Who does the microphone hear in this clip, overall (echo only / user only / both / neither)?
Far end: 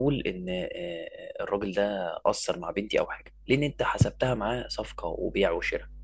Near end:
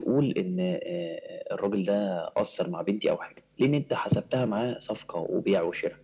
echo only